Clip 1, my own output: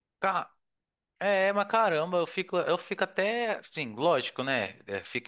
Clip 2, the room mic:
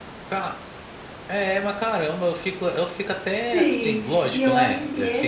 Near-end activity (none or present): present